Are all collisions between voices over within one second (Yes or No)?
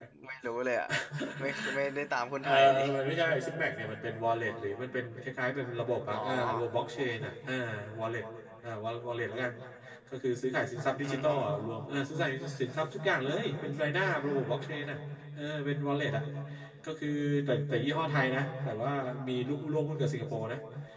Yes